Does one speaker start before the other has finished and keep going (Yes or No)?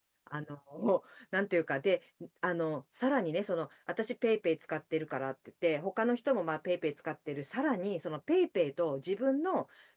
No